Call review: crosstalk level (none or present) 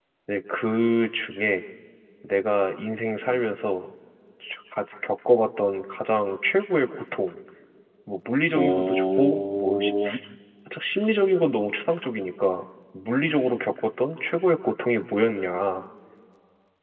present